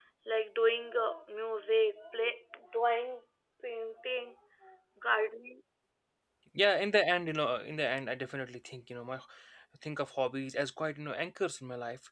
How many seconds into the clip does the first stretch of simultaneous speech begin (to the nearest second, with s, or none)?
none